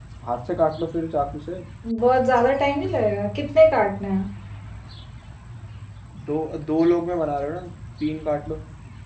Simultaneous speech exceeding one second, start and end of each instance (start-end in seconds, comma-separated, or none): none